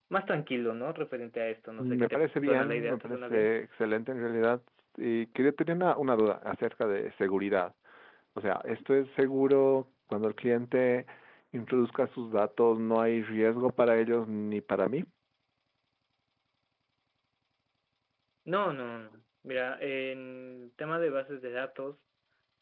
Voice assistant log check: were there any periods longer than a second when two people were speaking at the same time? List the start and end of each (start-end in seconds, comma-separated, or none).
1.8-3.5